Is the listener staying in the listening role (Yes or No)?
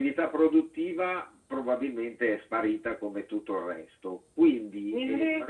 Yes